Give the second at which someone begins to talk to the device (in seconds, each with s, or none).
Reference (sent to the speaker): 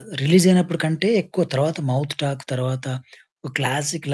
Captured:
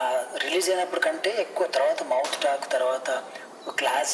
none